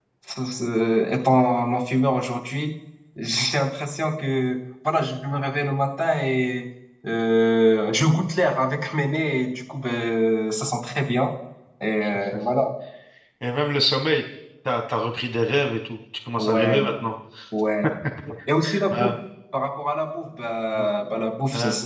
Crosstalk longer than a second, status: none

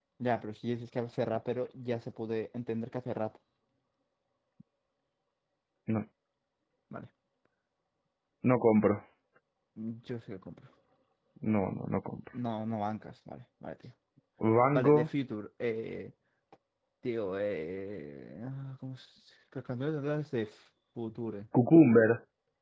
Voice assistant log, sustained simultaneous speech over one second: none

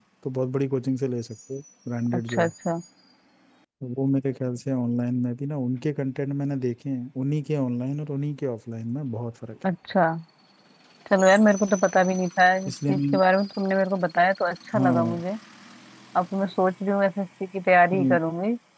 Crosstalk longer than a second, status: none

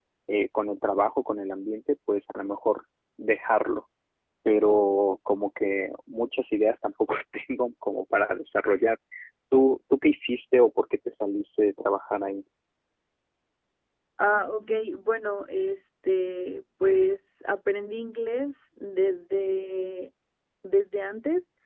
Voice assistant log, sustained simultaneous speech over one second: none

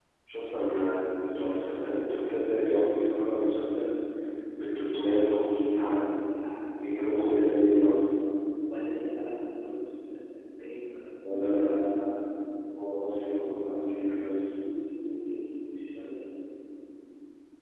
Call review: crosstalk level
present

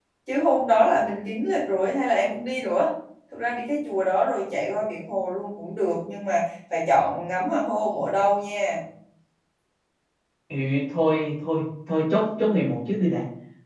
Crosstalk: none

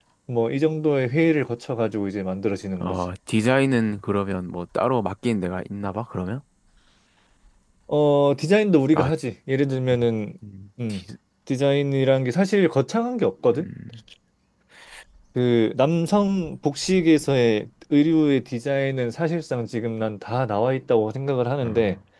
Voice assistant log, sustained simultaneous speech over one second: none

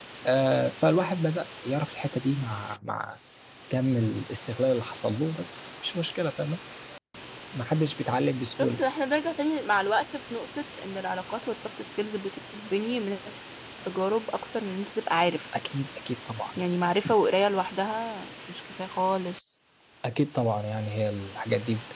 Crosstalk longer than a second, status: none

